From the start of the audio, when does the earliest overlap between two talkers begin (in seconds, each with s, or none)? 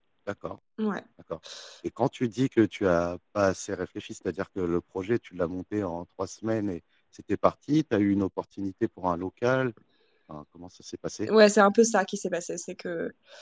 none